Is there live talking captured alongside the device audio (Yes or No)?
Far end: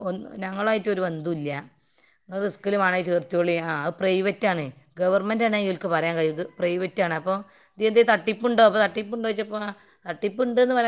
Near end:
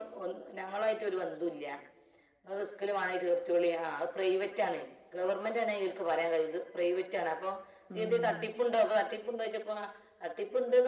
Yes